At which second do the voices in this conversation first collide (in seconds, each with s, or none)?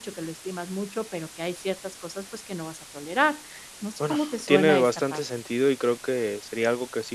4.0 s